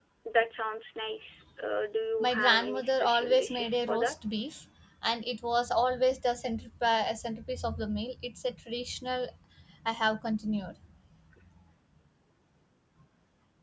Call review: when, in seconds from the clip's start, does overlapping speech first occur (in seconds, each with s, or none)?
2.2 s